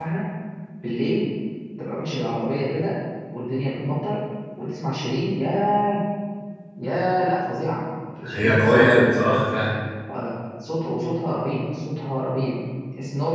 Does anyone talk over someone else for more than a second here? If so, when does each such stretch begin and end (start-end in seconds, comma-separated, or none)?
8.3-9.5